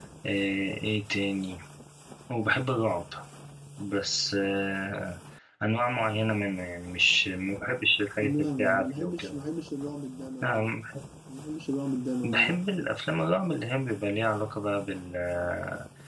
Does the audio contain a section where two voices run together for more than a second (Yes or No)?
Yes